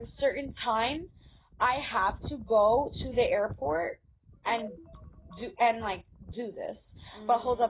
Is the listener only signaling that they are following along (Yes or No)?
Yes